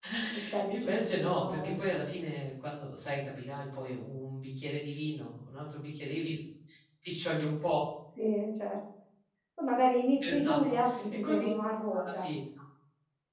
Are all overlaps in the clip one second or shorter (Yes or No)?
No